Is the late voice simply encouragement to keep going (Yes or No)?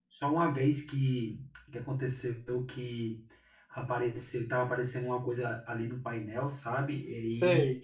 Yes